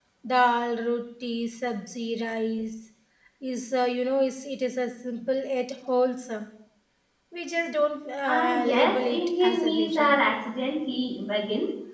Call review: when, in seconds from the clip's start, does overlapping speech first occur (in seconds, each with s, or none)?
8.2 s